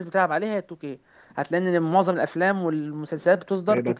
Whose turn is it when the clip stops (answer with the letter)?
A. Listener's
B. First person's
A